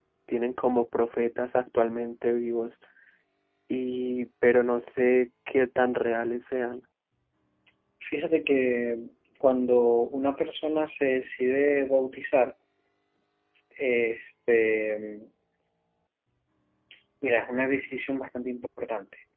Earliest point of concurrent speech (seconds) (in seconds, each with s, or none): none